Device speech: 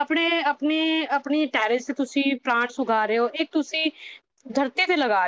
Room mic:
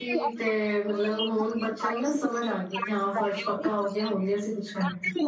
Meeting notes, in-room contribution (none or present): present